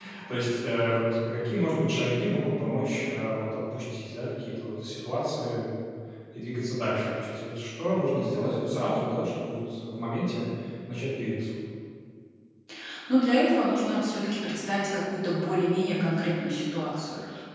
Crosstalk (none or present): none